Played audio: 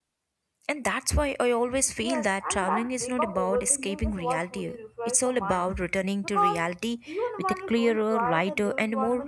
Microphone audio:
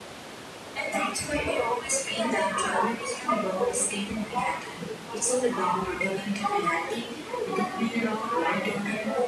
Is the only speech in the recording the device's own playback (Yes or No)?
Yes